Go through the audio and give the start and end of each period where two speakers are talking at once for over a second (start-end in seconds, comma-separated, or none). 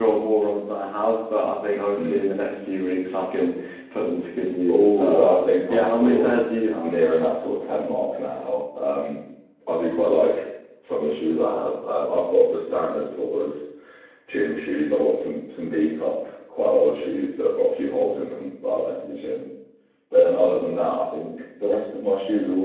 4.7-6.4